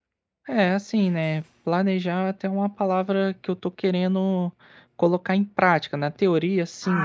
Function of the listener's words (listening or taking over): listening